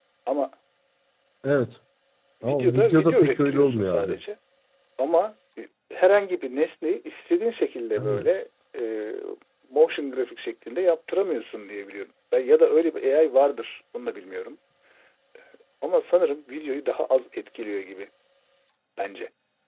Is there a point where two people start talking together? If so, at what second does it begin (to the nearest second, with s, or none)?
2 s